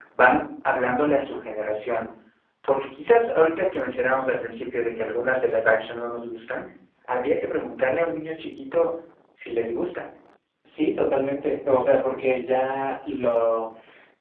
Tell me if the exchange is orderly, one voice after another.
Yes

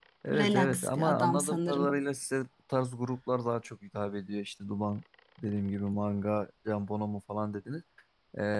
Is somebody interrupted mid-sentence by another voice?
Yes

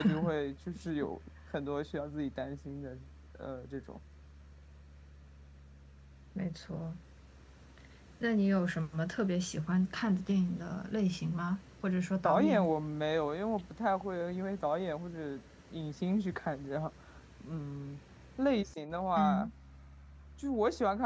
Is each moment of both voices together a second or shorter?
Yes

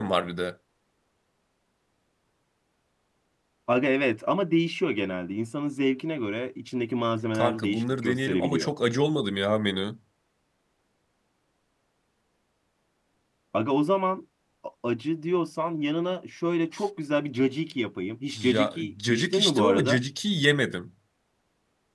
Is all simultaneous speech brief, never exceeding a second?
No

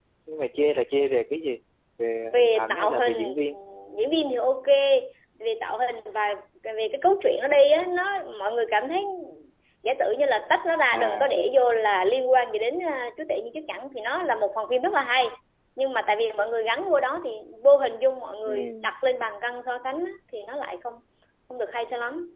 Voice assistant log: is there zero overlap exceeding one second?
No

